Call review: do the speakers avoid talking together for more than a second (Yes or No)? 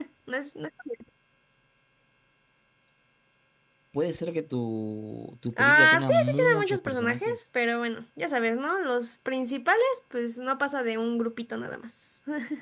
No